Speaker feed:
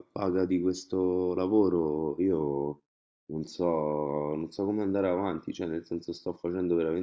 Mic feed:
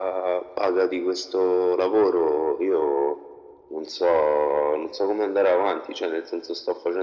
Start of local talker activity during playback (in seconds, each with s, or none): none